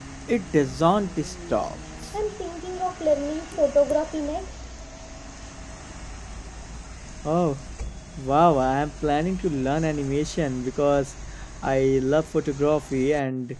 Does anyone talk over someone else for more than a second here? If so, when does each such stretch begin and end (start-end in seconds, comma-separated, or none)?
none